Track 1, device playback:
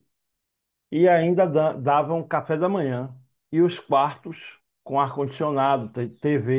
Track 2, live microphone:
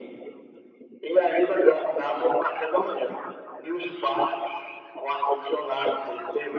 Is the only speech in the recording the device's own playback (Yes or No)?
Yes